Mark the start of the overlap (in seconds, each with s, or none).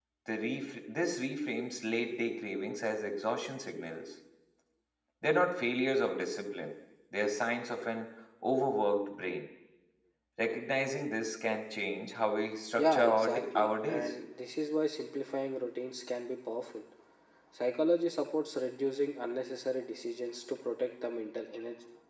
12.8 s